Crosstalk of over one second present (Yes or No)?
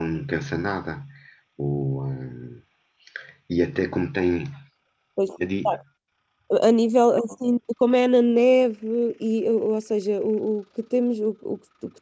No